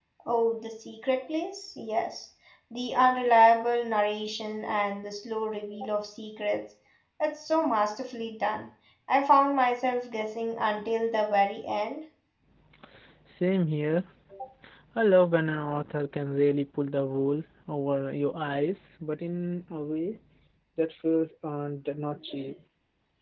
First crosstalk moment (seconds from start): none

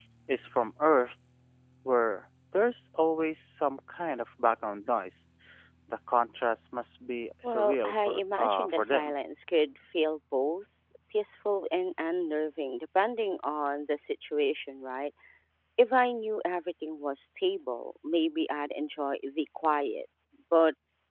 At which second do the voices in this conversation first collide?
7.4 s

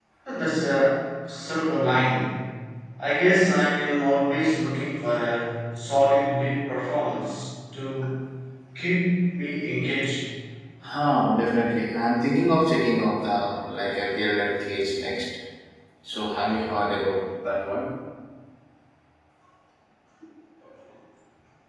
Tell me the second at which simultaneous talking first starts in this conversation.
none

